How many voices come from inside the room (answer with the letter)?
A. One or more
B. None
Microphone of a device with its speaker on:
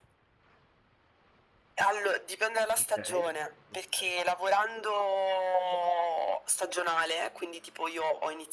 A